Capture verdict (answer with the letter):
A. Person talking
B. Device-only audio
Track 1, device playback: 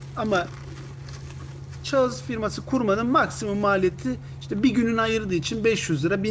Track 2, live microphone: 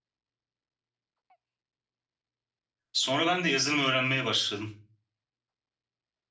A